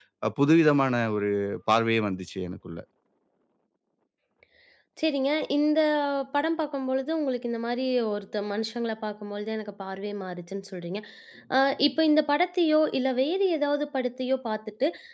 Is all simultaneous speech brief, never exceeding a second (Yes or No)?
Yes